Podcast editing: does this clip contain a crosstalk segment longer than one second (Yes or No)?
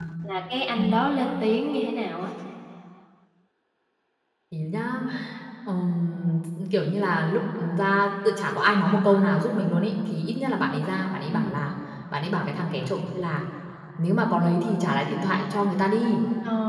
No